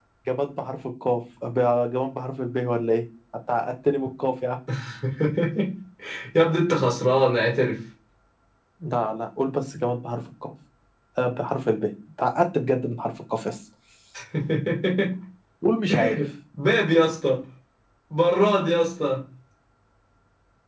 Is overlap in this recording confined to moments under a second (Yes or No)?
Yes